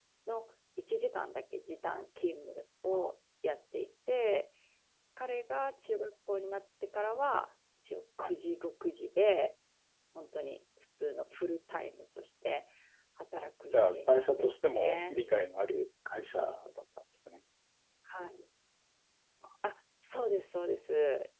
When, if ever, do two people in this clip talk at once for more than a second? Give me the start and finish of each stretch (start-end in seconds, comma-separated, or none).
13.7-15.2